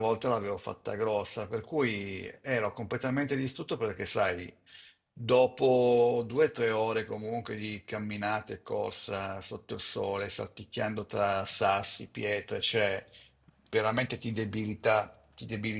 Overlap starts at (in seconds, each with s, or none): none